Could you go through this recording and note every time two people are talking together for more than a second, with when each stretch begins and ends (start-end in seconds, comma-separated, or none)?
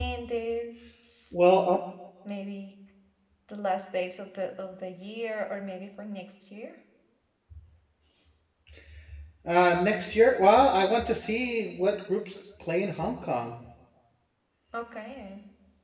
none